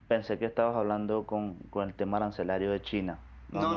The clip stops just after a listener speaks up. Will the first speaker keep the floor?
No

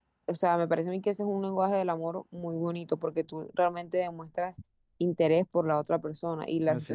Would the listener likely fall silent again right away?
Yes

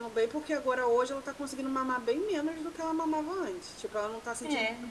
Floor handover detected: No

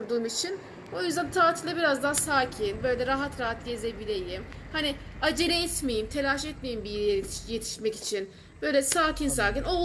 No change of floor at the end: Yes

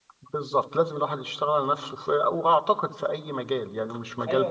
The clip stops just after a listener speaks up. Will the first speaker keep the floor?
No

